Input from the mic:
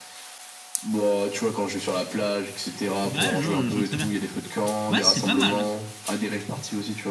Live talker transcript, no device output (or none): Bah, ouais, je, vois- je vois très bien. Ouais, c'est pas mal.